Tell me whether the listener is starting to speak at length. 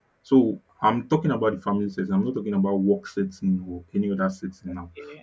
No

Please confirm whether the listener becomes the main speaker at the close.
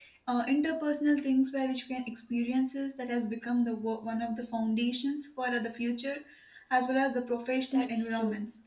Yes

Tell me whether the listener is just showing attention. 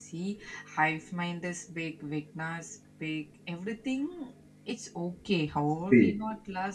Yes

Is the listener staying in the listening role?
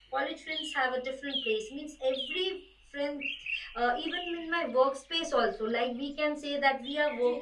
No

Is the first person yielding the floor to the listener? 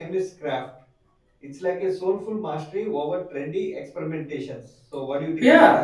Yes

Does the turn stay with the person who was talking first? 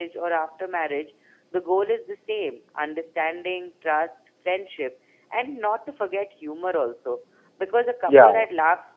Yes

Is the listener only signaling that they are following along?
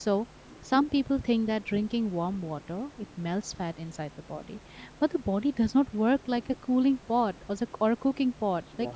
Yes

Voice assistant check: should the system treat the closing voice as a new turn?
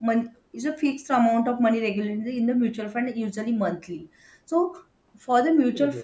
No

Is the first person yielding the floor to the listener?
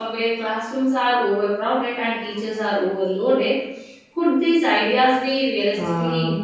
Yes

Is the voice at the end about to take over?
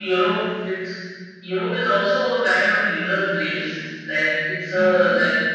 No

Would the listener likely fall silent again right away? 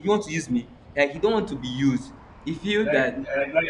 No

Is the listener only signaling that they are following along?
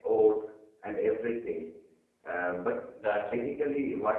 Yes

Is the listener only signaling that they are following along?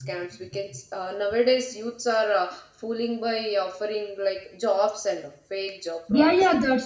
No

